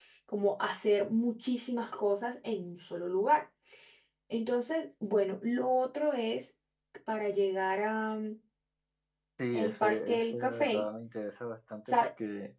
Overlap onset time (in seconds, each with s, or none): 9.5 s